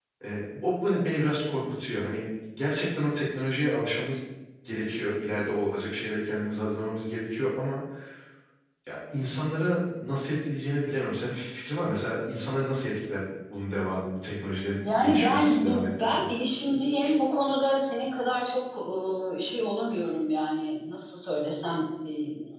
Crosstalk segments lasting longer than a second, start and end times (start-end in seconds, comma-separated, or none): 14.8-16.2